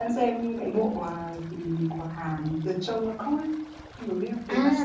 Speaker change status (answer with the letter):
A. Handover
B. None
A